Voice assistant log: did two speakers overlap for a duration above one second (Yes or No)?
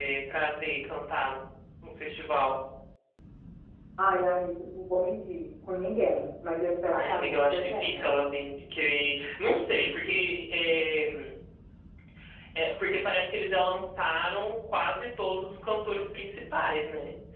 Yes